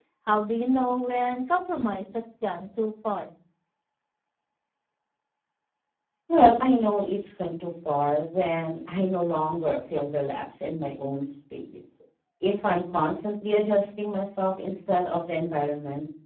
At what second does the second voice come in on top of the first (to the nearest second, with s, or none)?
none